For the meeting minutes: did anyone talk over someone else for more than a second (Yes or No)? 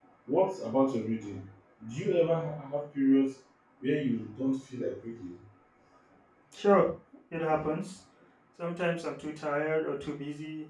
No